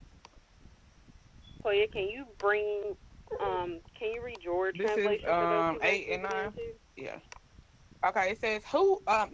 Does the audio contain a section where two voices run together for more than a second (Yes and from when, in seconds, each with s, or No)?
Yes, from 4.7 s